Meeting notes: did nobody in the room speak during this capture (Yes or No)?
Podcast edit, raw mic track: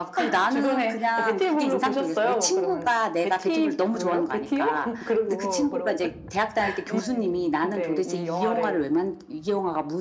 No